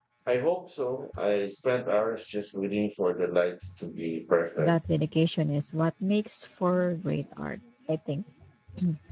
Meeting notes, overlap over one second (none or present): none